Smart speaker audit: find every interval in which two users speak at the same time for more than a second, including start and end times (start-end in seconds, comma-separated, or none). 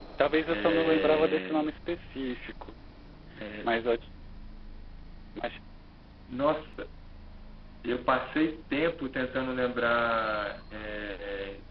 0.5-1.7